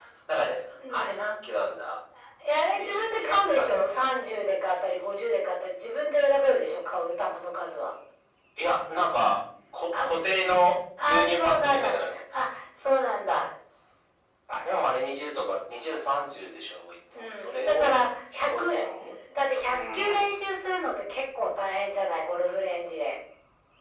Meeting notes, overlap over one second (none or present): present